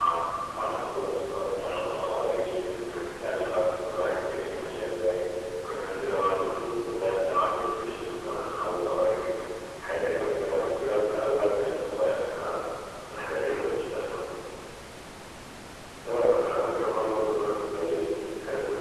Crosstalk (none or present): none